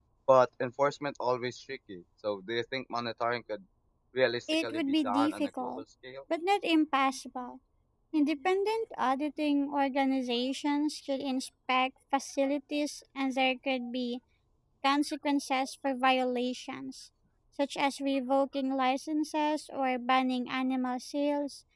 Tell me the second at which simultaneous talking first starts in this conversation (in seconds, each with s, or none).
4.6 s